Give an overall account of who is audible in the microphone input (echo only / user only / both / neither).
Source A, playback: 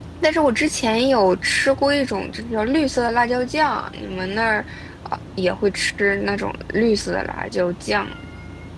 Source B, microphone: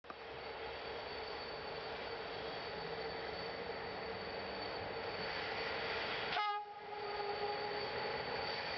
neither